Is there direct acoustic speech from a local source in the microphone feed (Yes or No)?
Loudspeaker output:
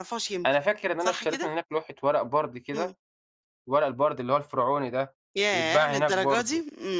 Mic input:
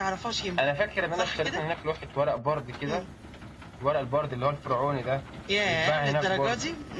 No